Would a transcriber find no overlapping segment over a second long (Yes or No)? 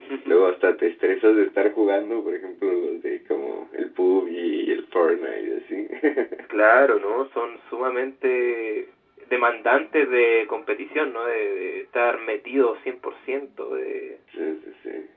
Yes